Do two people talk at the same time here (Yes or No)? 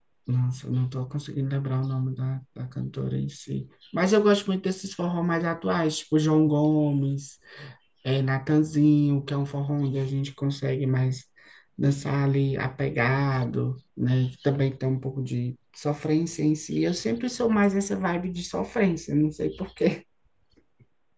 No